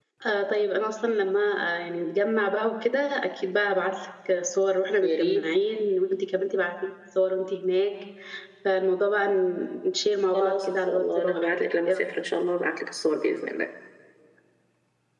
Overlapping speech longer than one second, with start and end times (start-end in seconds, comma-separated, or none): 10.3-12.0